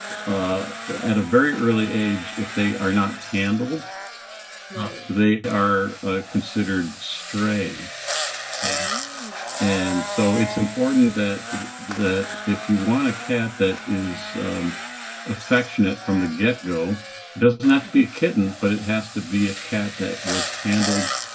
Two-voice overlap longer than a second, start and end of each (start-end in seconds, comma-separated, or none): none